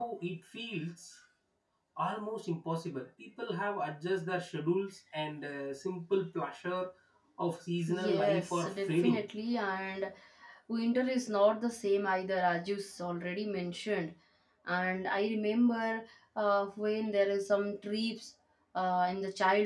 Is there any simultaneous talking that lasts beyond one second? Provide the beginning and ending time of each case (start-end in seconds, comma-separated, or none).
7.9-9.2